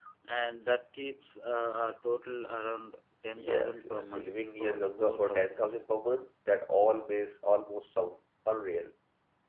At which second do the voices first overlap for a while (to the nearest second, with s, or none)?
3 s